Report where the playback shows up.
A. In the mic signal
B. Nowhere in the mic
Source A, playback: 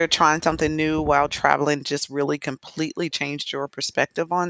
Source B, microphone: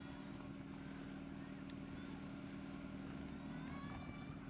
B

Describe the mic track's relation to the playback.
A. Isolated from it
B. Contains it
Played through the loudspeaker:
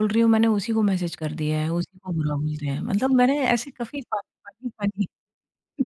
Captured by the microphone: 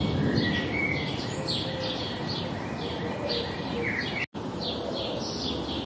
A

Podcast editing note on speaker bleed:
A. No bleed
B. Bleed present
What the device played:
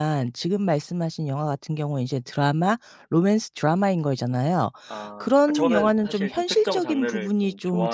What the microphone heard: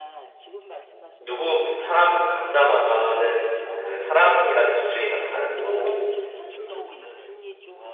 B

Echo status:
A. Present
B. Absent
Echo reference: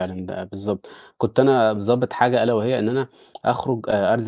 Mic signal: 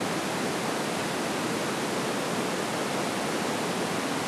B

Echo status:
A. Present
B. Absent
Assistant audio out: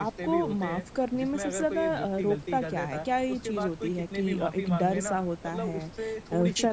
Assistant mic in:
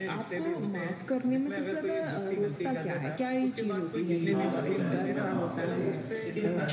A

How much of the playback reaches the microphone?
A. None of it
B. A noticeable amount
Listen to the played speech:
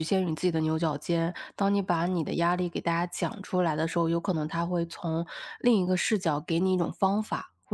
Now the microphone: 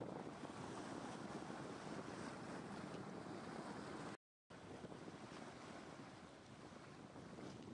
A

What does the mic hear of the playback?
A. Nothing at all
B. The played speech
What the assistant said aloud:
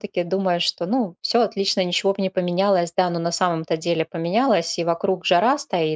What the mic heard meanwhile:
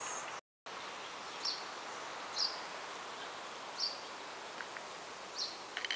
A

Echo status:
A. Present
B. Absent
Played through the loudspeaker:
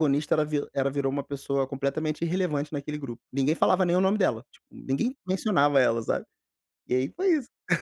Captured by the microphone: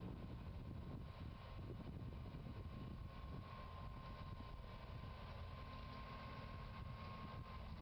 B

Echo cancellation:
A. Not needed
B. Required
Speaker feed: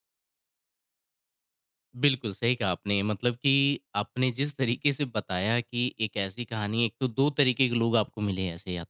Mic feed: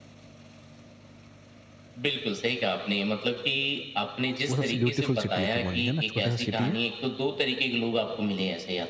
B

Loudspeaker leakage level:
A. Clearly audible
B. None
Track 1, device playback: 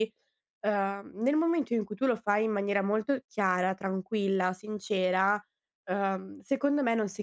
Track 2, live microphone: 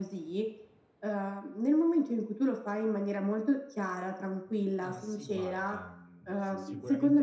A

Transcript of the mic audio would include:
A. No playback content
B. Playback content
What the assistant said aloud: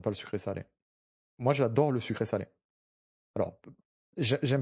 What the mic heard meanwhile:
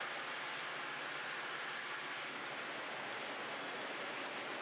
A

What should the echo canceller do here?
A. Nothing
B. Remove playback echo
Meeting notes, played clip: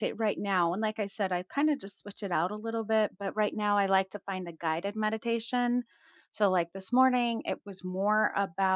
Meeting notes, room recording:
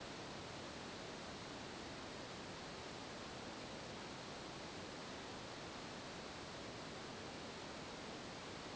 A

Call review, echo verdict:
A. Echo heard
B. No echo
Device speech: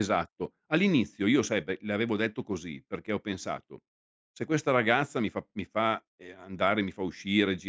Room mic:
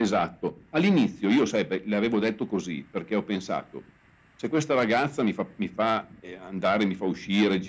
A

